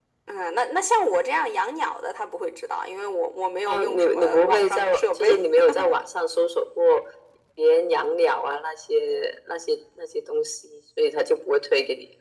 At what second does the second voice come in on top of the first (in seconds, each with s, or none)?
3.6 s